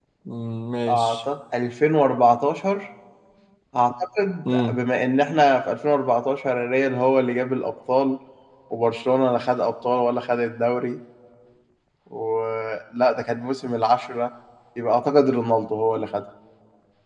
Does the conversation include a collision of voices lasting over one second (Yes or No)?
No